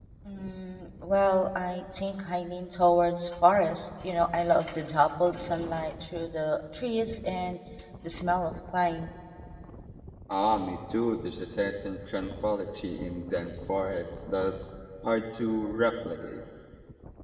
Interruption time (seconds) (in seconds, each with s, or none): none